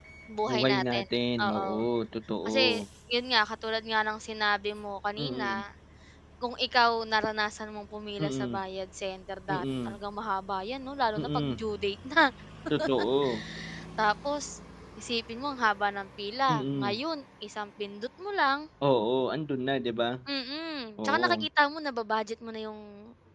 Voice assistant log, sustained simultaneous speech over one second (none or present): none